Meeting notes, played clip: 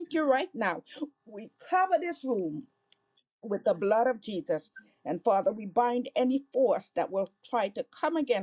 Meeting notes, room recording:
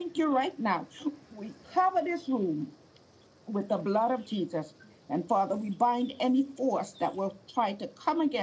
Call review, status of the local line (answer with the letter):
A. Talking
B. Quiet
B